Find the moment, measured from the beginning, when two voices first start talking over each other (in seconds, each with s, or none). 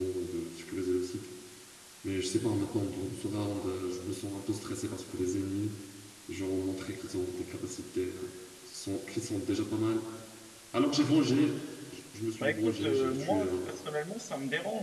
12.4 s